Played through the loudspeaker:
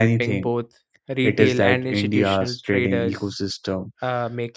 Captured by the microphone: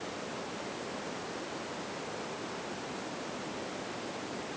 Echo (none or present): none